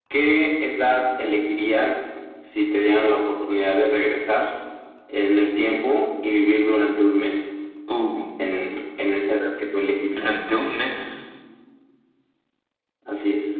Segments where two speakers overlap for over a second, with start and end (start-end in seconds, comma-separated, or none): none